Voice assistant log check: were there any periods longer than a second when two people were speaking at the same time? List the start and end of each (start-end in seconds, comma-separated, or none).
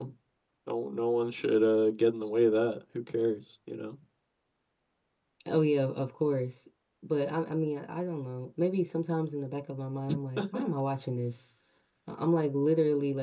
none